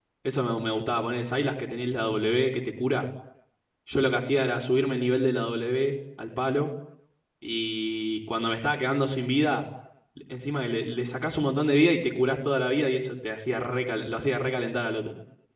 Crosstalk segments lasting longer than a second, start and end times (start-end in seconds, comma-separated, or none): none